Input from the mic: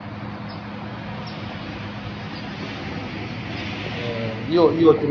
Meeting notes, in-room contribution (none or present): present